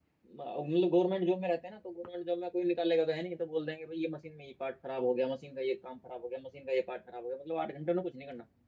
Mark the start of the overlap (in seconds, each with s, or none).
none